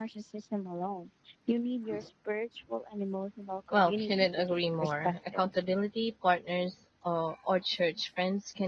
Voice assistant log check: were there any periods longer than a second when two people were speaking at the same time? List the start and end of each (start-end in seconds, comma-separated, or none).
3.7-5.4